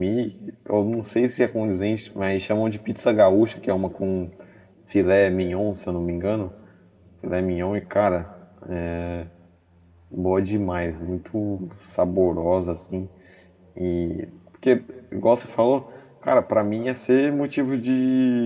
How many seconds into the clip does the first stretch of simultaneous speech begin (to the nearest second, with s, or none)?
none